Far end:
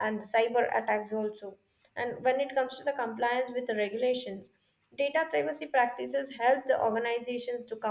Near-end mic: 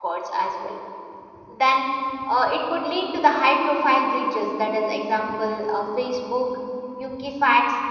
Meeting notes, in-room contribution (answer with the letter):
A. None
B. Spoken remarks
B